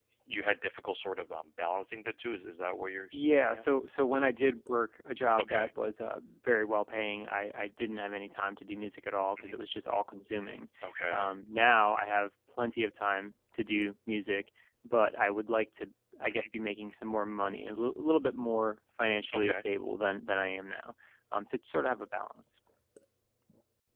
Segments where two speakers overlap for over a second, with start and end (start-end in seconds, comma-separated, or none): none